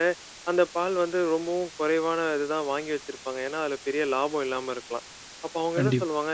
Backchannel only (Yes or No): Yes